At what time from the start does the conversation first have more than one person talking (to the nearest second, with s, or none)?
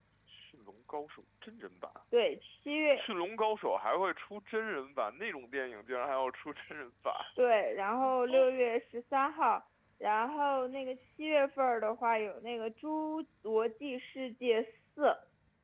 none